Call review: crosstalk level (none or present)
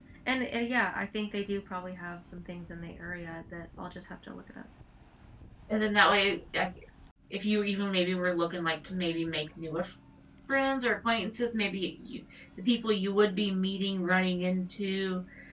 none